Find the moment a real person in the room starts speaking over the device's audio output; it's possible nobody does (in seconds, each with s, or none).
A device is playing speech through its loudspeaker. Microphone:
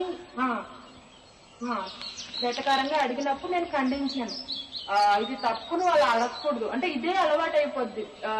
none